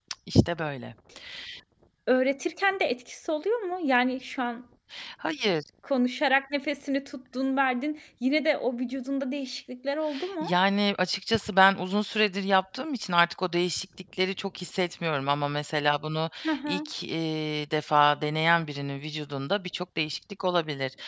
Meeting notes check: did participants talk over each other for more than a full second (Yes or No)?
No